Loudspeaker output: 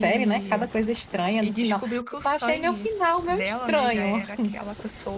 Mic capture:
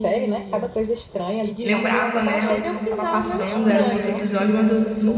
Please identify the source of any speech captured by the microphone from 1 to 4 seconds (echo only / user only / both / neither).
both